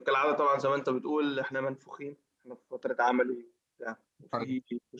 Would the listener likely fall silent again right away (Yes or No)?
Yes